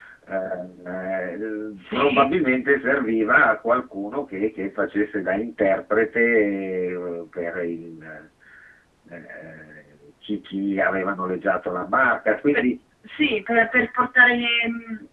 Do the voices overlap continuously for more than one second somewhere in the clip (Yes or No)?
No